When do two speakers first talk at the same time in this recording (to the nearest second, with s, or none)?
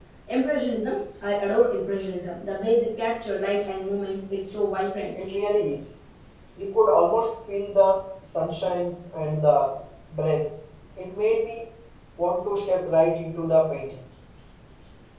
none